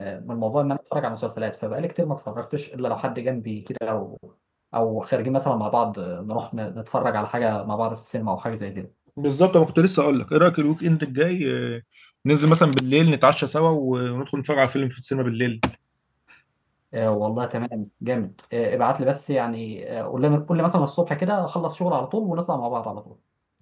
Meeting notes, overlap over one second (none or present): none